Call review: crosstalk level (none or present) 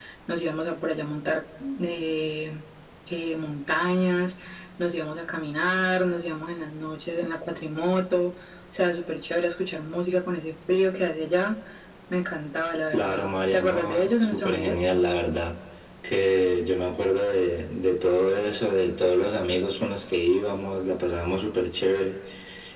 present